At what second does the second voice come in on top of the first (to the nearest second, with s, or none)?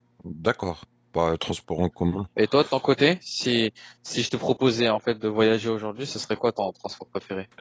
none